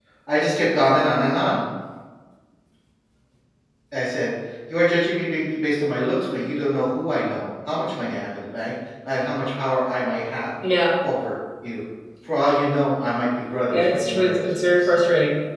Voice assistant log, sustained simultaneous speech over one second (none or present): present